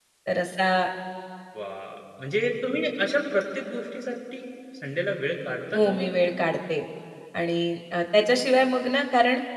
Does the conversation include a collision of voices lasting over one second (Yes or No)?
No